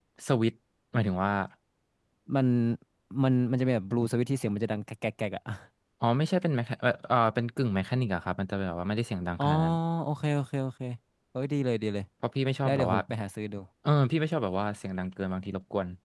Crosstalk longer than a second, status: none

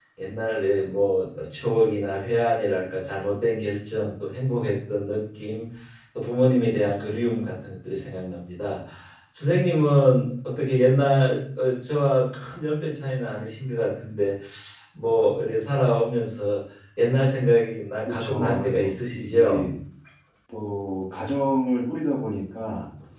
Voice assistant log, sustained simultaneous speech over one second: present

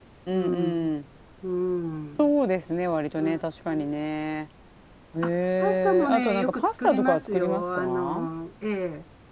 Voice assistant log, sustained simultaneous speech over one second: present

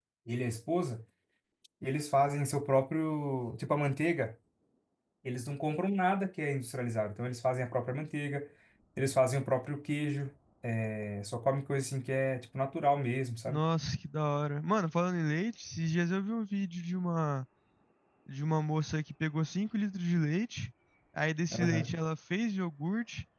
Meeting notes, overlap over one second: none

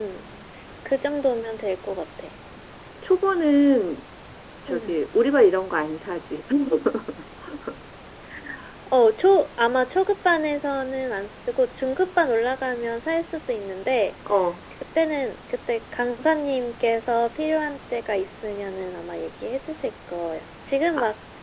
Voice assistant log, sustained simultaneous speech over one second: none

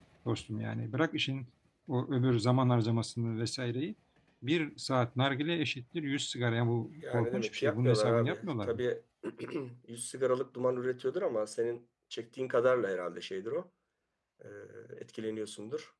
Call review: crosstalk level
present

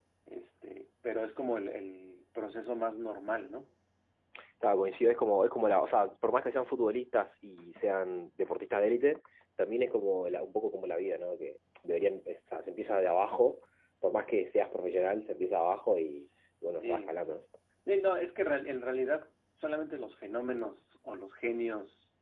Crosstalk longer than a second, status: none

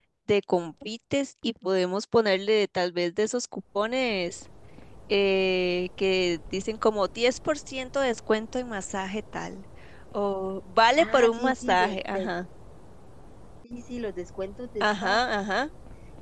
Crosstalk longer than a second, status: present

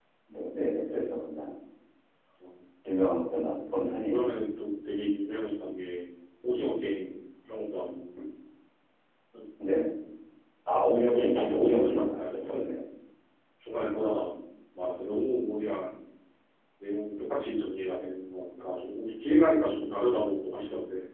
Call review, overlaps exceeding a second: present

